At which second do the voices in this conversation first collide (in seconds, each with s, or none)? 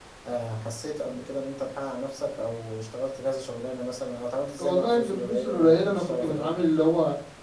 4.6 s